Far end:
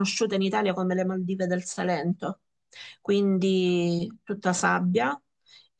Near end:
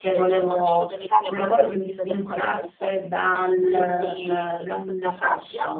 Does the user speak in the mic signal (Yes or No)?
Yes